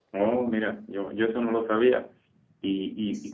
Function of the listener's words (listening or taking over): listening